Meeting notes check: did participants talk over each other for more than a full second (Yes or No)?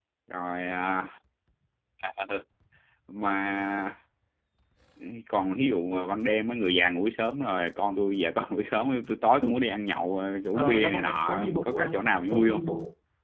Yes